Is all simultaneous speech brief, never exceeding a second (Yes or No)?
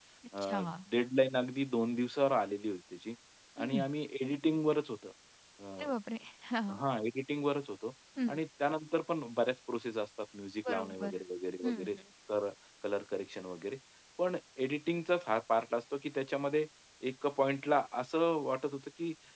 Yes